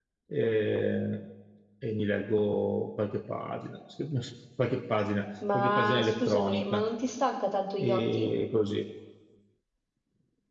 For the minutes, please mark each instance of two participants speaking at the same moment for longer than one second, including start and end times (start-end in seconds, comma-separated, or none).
5.5-6.9